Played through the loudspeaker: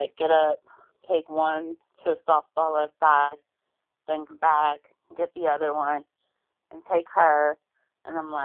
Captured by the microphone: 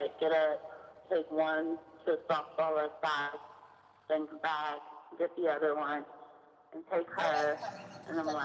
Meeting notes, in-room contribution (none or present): present